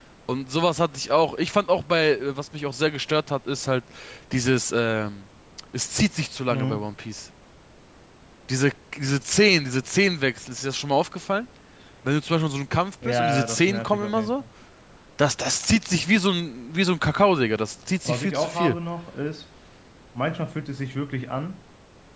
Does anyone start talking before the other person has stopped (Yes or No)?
Yes